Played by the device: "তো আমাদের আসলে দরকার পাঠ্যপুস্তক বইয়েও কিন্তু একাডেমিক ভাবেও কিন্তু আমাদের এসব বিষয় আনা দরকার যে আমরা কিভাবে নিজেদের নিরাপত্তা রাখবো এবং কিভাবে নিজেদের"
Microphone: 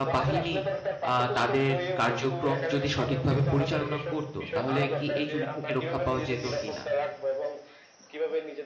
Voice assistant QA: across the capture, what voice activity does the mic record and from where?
both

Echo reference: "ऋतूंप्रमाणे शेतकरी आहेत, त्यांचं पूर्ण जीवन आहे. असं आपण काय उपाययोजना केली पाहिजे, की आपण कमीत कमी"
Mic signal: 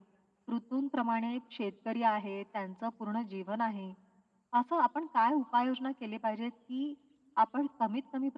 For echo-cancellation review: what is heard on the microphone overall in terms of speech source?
echo only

